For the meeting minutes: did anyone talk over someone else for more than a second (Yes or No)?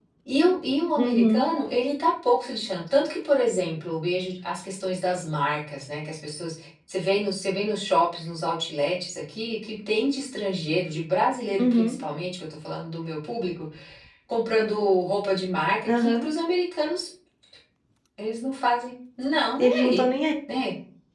No